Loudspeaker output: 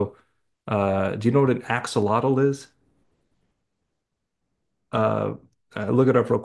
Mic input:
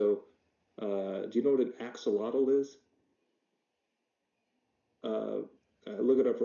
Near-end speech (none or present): none